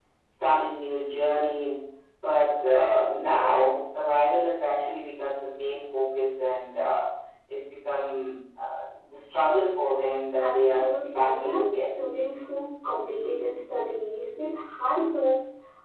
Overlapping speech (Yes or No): Yes